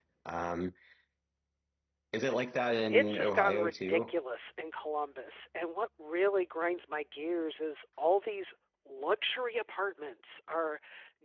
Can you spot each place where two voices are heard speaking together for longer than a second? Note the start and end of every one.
2.9-4.2

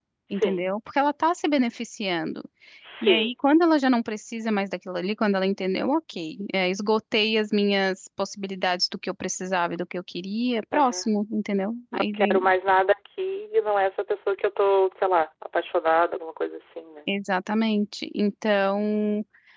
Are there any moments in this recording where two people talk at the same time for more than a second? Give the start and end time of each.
none

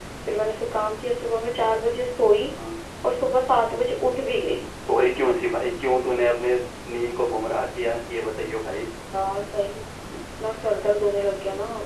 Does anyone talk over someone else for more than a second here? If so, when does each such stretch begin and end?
none

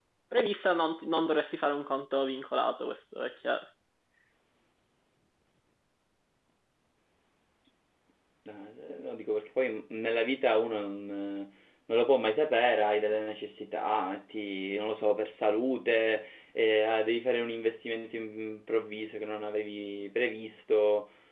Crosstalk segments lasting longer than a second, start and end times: none

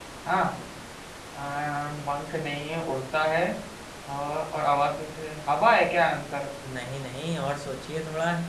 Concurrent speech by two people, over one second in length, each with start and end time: none

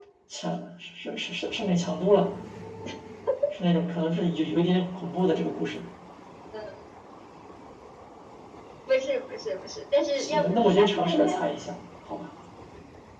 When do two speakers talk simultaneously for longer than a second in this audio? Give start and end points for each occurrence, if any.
10.2-11.4

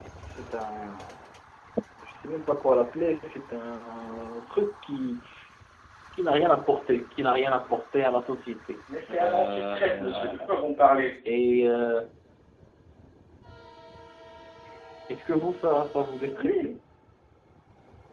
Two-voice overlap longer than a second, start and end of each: 9.1-10.3

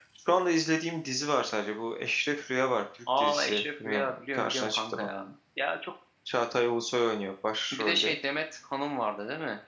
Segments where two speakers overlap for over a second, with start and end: 3.2-5.1

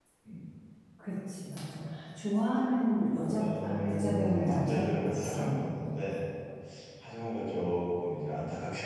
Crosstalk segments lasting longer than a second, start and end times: 3.0-5.5

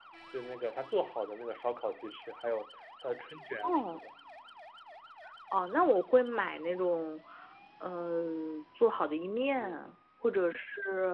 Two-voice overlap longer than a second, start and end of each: none

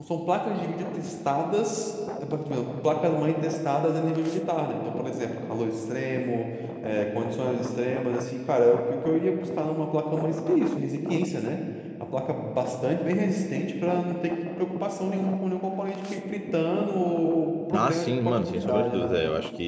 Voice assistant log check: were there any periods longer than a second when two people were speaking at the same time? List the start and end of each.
17.7-19.1

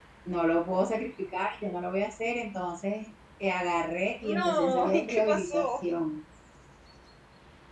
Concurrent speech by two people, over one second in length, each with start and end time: 4.2-5.8

